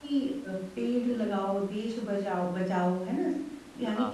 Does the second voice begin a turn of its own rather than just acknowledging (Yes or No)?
No